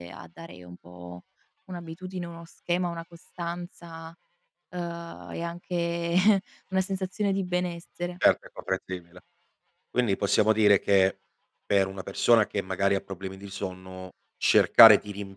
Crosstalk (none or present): none